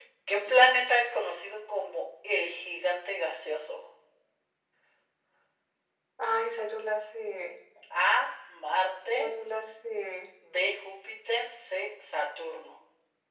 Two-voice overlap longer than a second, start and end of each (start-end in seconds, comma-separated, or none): none